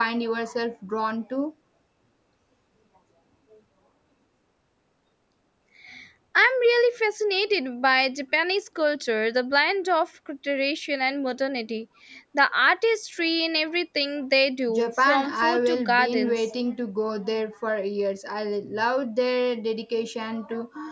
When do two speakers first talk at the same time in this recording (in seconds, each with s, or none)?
14.7 s